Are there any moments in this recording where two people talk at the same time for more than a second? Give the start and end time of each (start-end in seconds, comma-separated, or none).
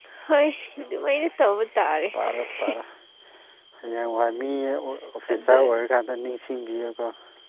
none